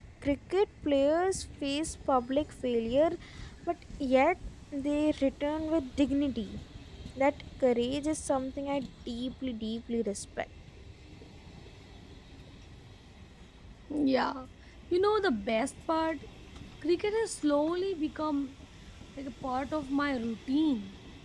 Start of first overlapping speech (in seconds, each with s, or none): none